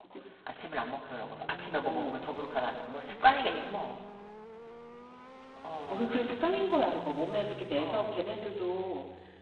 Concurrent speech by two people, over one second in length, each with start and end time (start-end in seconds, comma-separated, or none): none